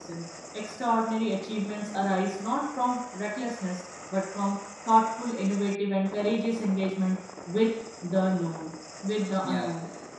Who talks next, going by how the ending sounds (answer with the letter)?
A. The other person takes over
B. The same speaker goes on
A